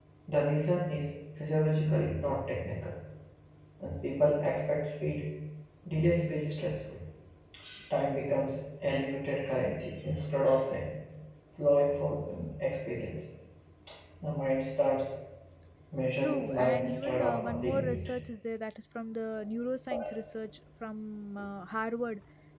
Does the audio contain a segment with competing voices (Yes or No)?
Yes